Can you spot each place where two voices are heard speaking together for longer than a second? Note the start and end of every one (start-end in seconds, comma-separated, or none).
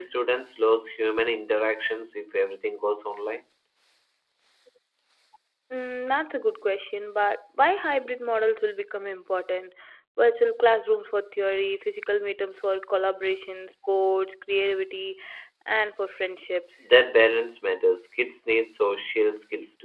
none